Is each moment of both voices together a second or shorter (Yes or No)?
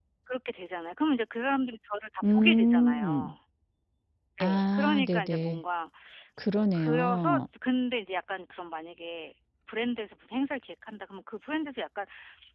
No